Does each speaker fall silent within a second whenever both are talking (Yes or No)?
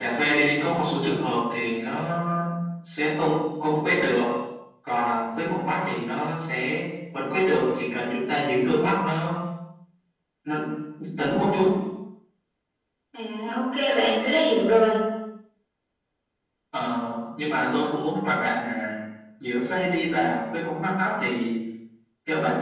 Yes